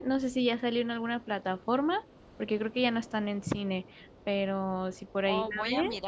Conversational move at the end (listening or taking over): taking over